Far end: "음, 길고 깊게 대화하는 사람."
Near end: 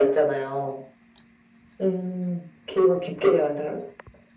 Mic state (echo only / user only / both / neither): echo only